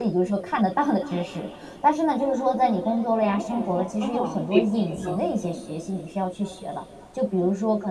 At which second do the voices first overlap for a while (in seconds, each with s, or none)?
3.2 s